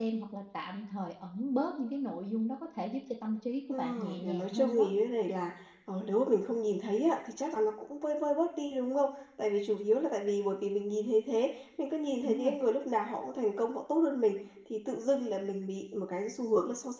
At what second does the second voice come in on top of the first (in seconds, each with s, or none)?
3.7 s